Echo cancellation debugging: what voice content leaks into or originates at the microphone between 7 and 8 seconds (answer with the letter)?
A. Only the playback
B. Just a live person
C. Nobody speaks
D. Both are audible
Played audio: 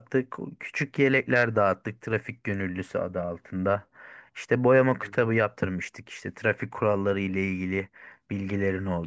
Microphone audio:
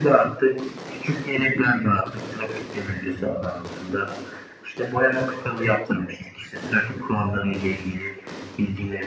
A